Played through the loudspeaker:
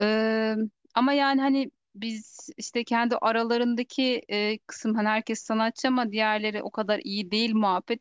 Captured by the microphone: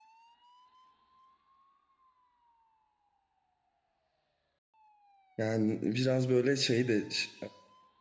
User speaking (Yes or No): Yes